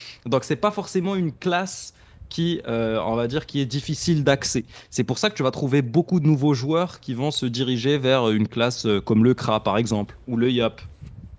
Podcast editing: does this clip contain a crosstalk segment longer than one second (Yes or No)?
No